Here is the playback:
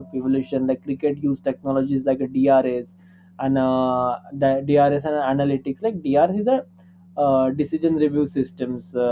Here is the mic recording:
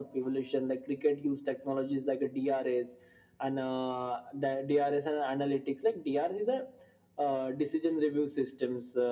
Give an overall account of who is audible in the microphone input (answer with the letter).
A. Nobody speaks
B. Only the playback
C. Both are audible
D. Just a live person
B